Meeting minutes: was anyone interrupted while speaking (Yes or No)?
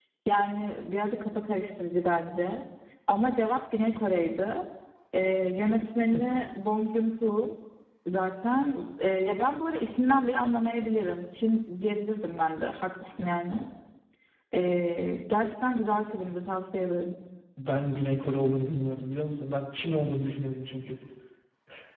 No